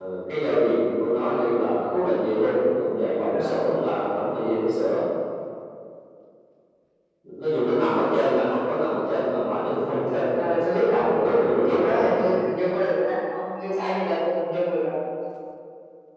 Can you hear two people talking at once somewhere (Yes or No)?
Yes